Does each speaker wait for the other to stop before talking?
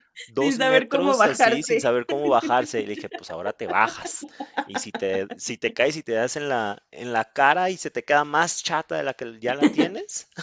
No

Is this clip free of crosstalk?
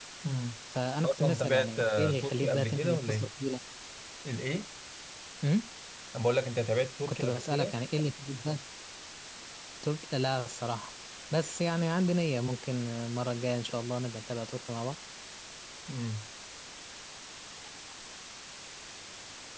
No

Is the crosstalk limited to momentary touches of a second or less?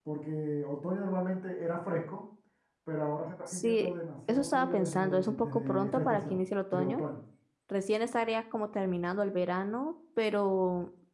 No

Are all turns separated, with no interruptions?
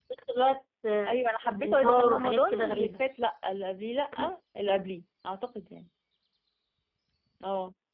No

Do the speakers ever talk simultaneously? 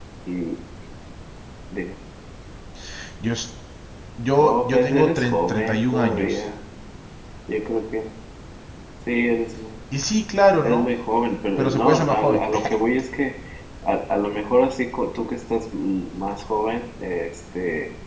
Yes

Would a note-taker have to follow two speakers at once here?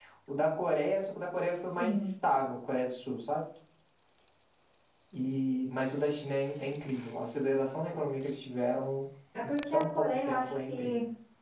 Yes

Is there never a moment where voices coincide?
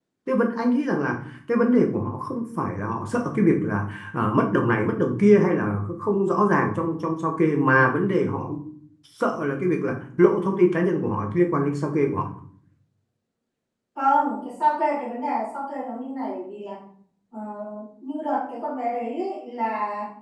Yes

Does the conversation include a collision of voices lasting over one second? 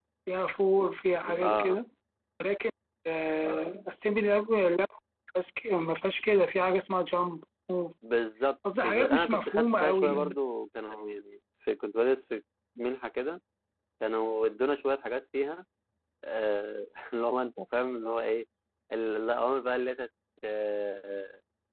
Yes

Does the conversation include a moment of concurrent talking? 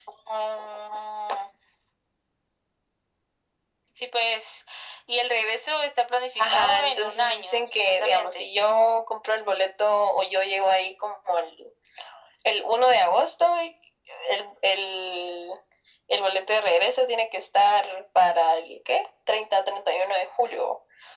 Yes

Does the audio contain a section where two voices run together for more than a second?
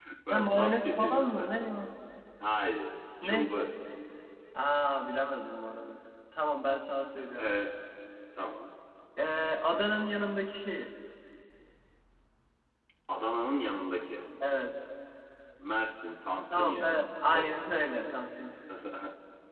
Yes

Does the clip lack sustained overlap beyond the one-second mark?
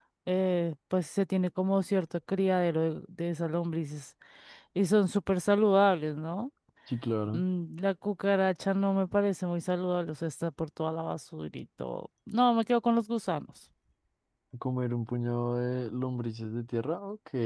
Yes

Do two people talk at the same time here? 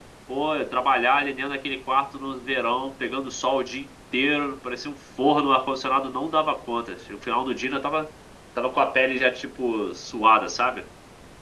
No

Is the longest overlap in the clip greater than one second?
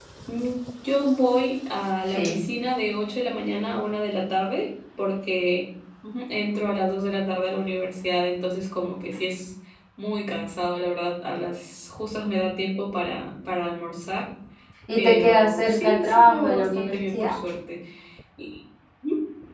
Yes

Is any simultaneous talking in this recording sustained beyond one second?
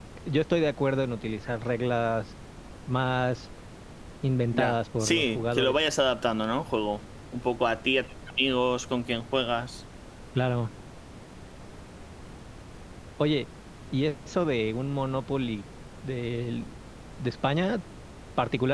Yes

